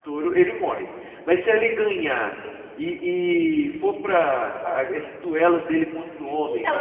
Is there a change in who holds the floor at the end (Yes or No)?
Yes